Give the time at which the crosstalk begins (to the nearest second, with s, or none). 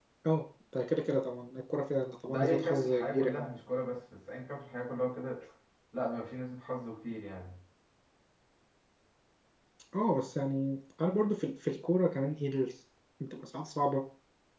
2 s